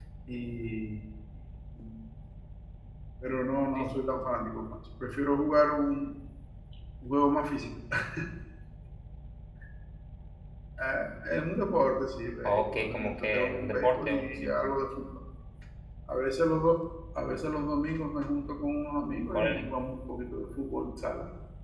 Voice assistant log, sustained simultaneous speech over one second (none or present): present